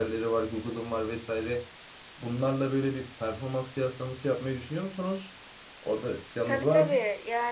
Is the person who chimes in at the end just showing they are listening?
No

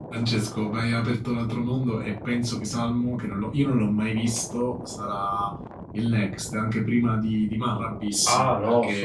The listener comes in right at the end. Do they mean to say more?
Yes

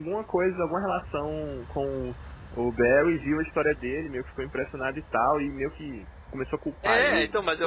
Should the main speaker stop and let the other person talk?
Yes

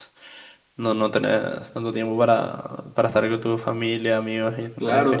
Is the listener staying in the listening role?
No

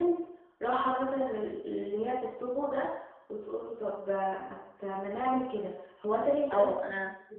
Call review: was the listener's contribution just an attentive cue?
No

